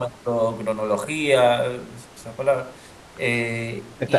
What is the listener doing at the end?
taking over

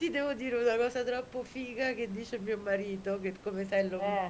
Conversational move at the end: listening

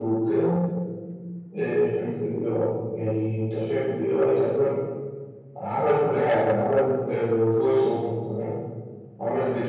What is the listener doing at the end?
listening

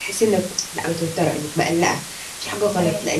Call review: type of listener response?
listening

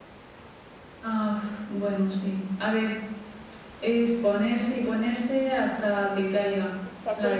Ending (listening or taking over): taking over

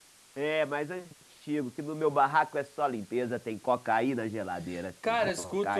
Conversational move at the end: taking over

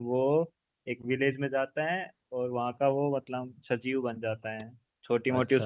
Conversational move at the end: listening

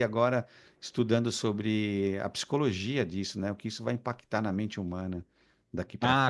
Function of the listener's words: taking over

